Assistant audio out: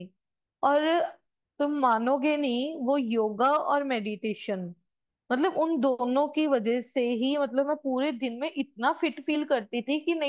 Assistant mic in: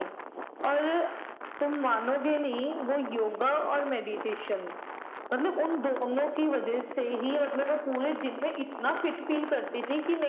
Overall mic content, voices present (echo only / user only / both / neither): echo only